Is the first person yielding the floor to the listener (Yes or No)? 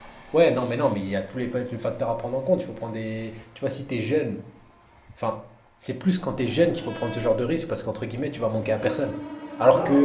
No